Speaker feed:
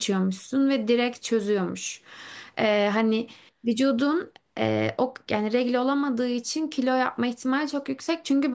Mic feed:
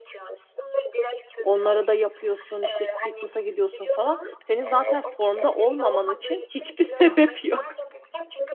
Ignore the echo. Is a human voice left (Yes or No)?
Yes